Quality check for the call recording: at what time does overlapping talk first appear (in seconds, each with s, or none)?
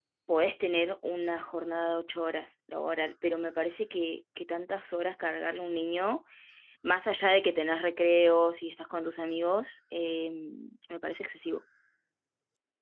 none